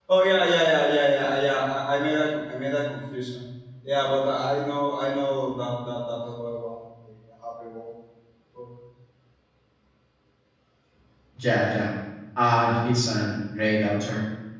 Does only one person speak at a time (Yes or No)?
Yes